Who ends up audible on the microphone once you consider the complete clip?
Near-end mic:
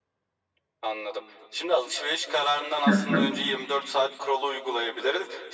both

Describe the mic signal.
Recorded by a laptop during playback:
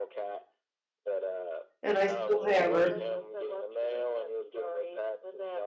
both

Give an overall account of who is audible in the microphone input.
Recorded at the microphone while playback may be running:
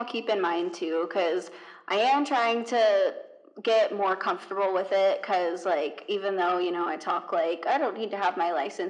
echo only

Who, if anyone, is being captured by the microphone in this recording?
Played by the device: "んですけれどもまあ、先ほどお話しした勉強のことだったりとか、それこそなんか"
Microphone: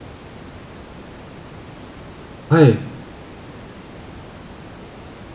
user only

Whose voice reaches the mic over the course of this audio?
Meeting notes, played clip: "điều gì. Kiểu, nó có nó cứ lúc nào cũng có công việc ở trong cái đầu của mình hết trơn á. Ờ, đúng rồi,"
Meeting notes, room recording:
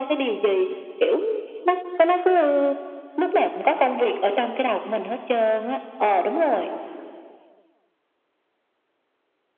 echo only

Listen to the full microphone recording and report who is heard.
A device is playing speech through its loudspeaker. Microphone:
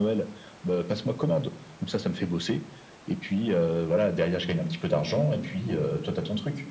echo only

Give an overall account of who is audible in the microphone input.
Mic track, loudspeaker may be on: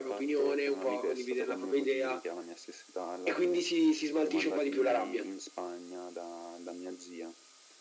echo only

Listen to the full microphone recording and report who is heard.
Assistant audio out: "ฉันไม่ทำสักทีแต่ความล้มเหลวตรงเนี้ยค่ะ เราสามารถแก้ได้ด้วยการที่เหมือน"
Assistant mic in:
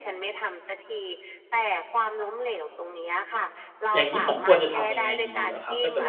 both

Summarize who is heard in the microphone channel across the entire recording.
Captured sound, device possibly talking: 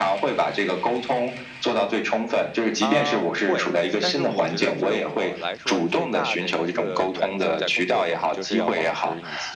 both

